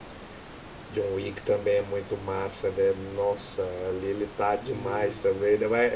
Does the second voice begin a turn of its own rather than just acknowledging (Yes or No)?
No